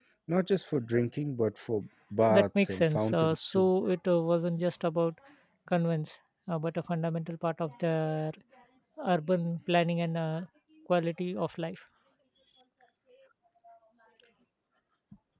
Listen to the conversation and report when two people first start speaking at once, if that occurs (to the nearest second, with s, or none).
2 s